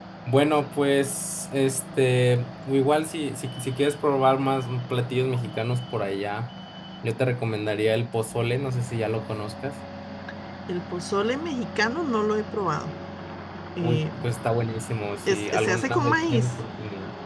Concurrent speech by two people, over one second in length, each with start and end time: 15.3-16.5

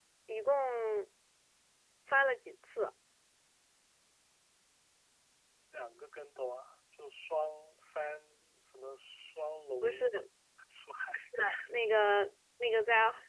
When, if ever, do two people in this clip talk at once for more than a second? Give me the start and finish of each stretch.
none

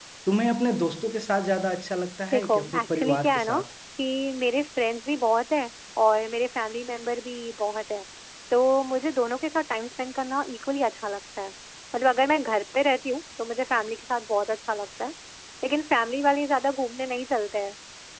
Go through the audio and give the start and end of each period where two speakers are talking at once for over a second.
2.3-3.6

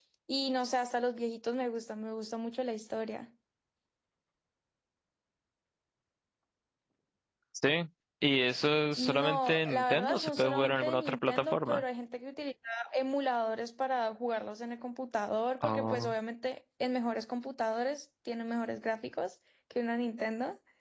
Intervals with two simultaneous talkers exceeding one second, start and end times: 9.0-11.8

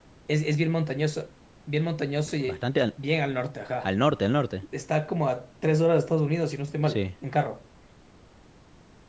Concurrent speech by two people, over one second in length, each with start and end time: none

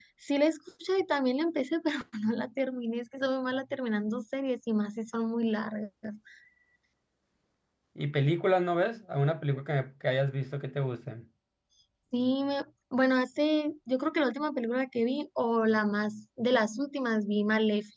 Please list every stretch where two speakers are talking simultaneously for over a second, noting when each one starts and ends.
none

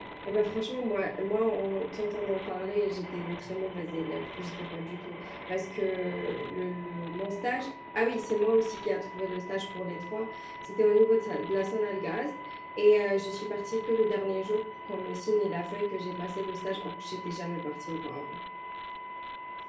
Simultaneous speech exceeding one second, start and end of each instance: none

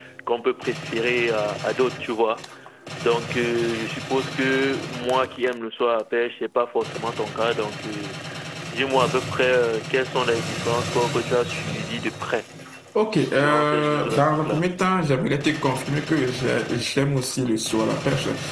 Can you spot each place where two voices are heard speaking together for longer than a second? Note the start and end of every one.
13.3-14.7

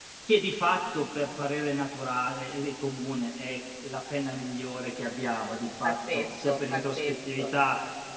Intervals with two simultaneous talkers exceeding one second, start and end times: 5.8-7.4

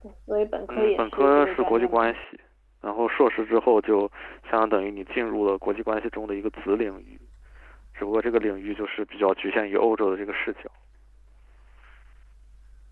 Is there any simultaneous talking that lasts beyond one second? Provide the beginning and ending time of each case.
0.7-2.1

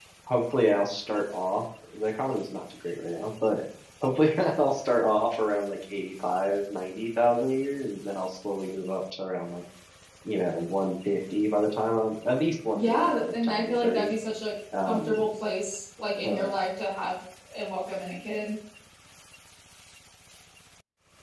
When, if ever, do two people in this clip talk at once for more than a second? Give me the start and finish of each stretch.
12.7-14.1

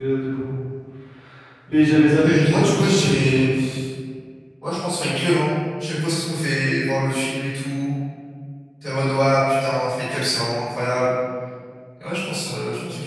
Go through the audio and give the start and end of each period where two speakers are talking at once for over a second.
2.1-3.5

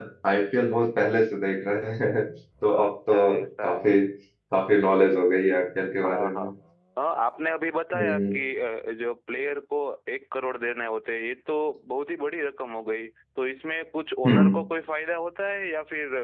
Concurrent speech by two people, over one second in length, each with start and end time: 2.7-3.9

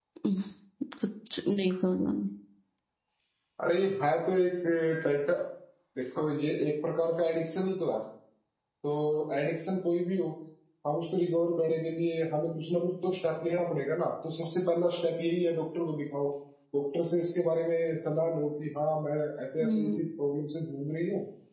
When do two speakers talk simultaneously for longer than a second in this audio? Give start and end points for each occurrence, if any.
none

